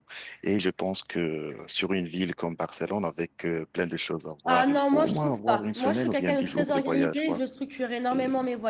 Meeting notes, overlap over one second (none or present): present